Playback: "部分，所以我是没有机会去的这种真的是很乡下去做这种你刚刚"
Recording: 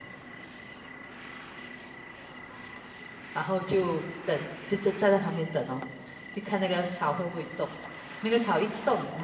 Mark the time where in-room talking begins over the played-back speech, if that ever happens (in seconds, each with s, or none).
3.3 s